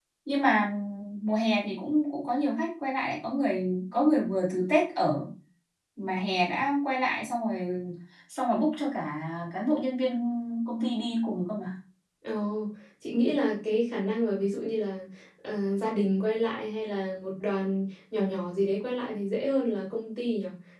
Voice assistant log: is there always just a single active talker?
Yes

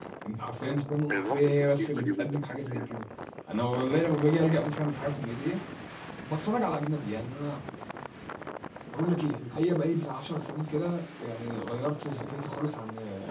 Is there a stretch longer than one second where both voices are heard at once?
Yes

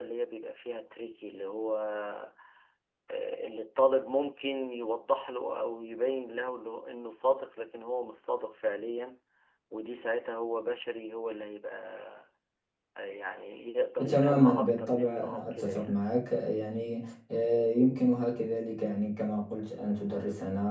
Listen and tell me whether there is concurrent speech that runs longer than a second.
Yes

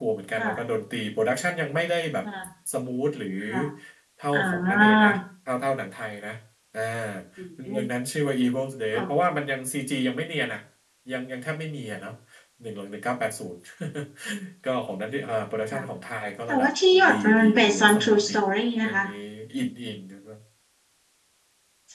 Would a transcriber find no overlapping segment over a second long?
No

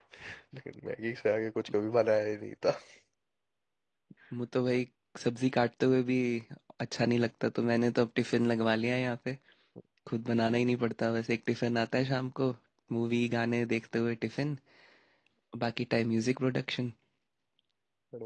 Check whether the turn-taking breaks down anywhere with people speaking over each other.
No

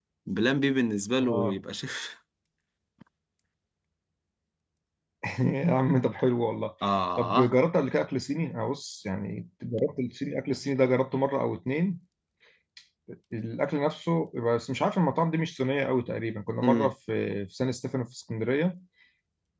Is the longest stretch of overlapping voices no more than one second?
Yes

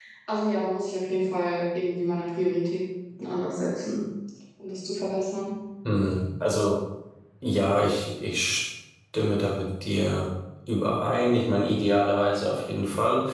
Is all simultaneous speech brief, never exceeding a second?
Yes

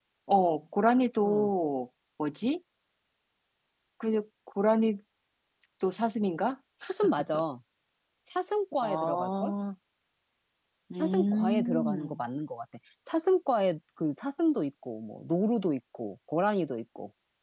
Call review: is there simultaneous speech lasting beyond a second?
Yes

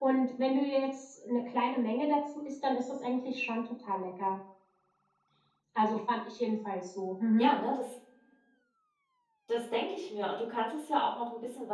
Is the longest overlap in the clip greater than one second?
No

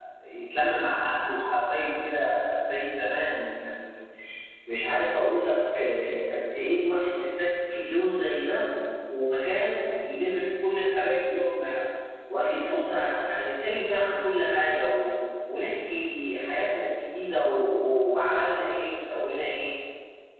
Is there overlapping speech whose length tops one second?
No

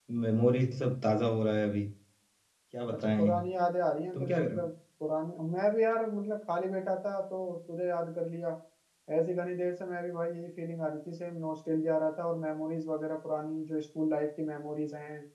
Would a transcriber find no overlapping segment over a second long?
Yes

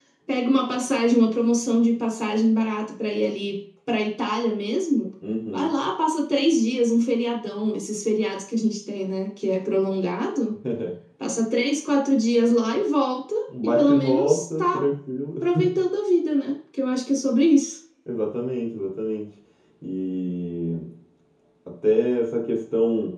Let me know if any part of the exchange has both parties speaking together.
Yes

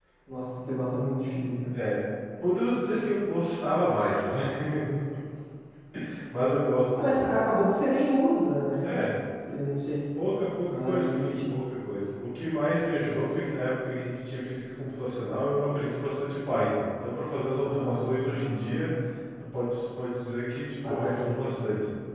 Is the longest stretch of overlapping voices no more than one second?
No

